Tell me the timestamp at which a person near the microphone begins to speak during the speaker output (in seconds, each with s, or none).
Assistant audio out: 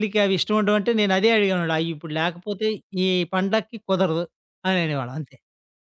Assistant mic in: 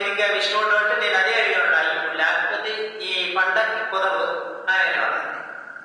none